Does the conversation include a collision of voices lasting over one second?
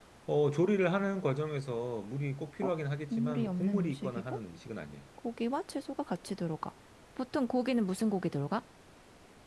Yes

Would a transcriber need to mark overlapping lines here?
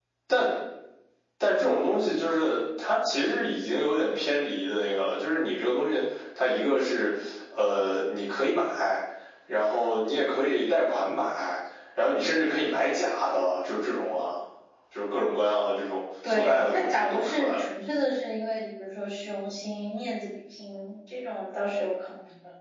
Yes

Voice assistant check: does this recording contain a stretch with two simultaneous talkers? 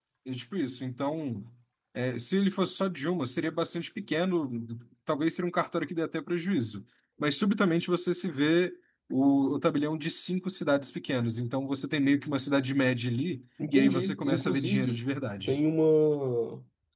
Yes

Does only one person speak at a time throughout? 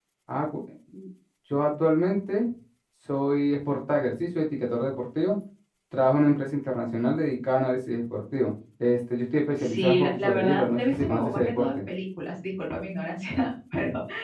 No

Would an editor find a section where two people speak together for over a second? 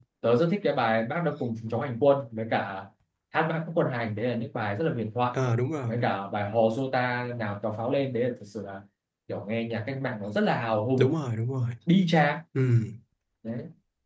No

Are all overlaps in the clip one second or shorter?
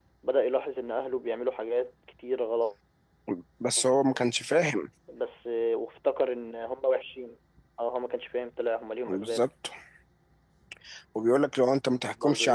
Yes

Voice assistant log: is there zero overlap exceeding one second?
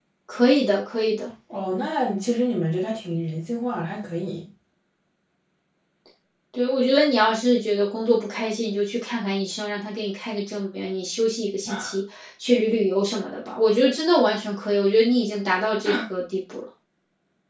Yes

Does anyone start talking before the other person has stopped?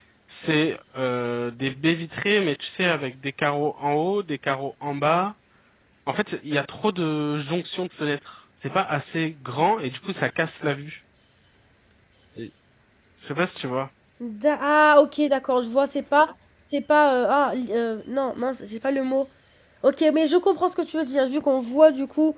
No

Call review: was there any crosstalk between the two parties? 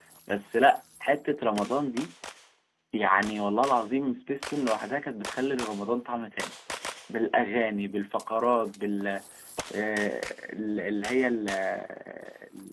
No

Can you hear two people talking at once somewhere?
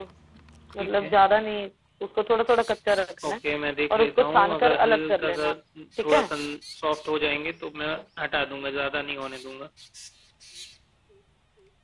Yes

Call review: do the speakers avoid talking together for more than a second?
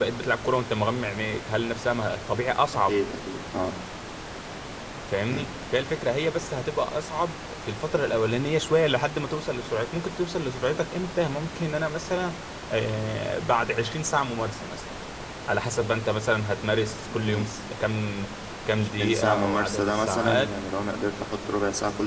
No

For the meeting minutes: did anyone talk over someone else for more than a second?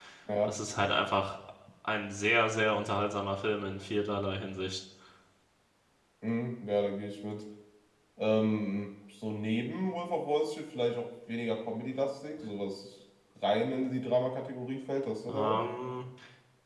No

